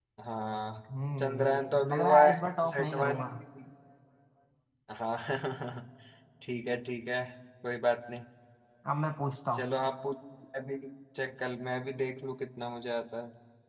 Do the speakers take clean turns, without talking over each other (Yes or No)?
No